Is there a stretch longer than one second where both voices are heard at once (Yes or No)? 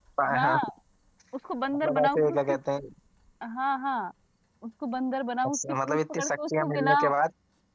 Yes